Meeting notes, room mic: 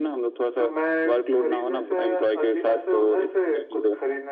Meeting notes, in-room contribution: none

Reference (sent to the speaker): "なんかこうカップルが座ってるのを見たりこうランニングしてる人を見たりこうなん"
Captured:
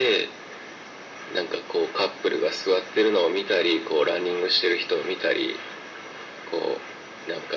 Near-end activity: none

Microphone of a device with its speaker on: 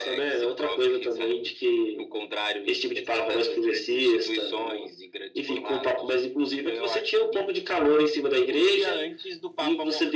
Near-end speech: none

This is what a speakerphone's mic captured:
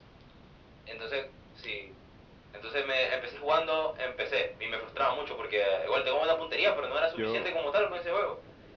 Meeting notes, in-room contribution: present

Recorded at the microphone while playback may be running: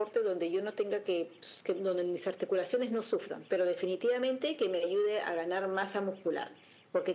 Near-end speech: none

